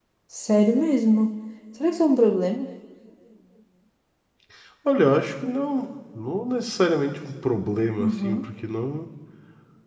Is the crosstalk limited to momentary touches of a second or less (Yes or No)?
Yes